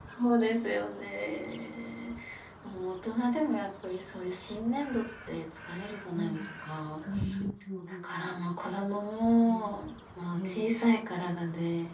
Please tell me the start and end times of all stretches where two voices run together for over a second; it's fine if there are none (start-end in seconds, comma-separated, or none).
none